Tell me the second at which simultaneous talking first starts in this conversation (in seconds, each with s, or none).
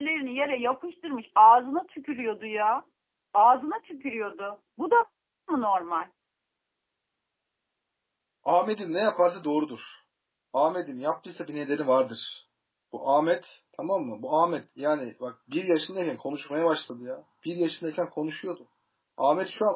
none